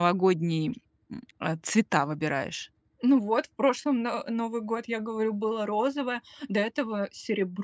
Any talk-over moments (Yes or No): No